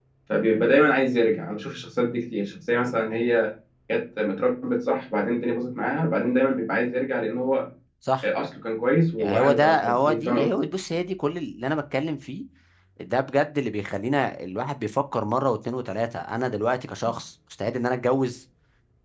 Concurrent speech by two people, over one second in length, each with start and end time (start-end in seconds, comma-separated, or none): 9.2-10.7